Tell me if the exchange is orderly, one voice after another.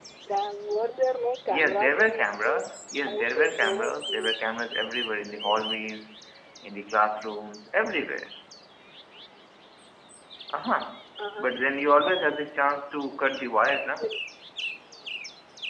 No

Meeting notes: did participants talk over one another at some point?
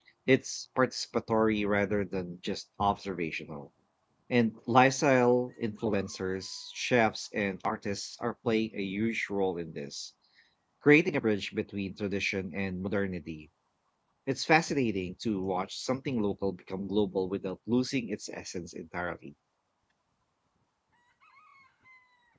No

